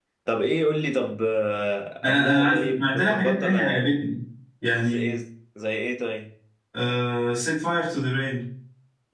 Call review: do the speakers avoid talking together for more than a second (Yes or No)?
No